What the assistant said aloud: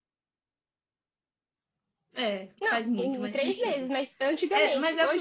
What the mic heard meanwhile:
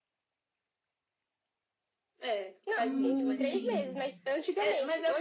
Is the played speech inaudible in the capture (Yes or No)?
No